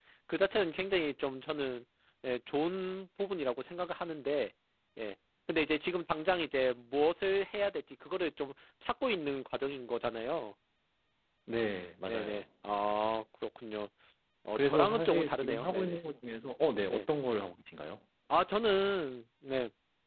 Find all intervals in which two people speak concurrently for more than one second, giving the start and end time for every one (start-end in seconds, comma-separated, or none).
14.6-16.0